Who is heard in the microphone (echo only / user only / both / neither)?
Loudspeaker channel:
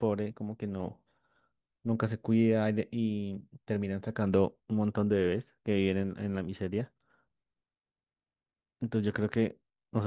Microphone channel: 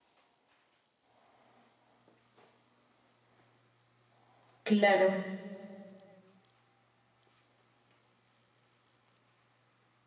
user only